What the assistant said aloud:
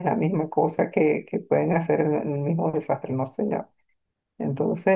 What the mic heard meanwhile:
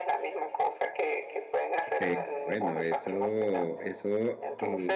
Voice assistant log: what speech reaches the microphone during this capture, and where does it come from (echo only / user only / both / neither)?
both